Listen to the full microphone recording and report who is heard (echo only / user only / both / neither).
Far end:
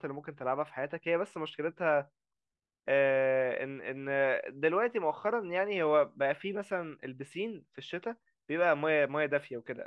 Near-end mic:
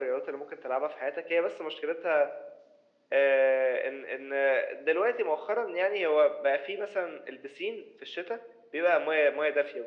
echo only